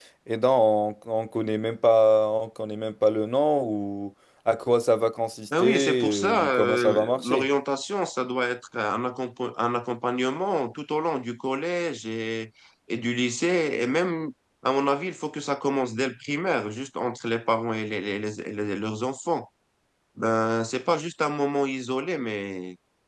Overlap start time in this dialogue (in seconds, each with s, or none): 5.5 s